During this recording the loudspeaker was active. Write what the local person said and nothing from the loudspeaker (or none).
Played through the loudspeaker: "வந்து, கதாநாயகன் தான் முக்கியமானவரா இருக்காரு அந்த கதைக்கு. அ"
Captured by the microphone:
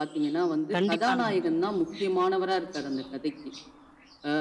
கண்டிப்பாங்க.